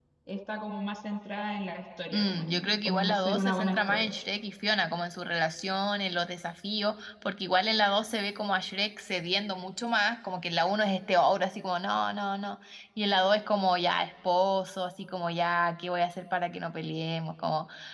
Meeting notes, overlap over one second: present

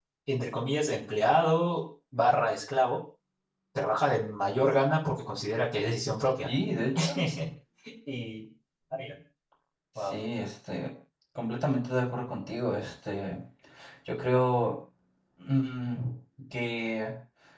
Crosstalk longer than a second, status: none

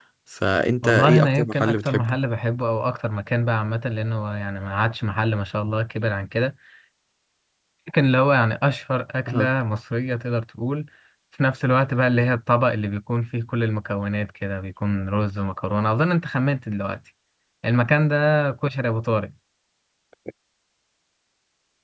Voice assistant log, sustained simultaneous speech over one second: present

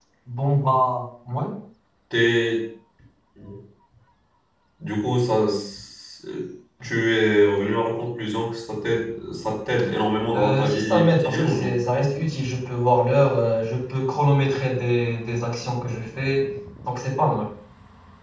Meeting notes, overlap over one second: present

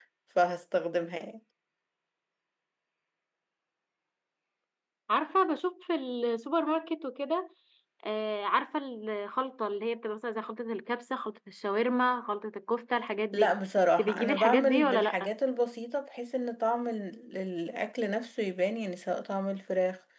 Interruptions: present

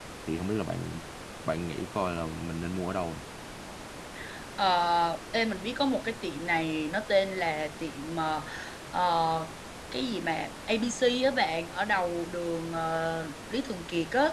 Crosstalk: none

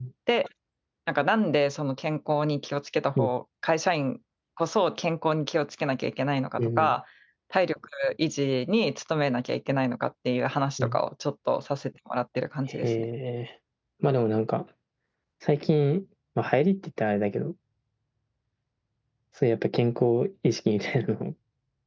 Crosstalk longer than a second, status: none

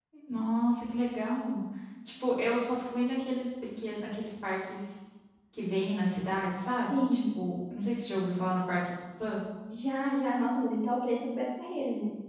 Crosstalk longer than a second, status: none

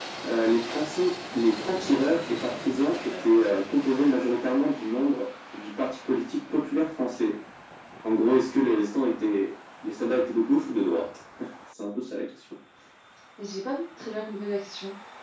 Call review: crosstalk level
none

